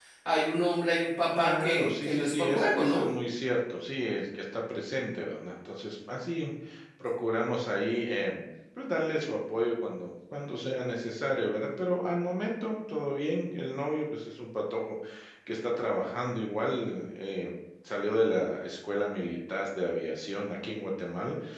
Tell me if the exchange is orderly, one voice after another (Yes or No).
No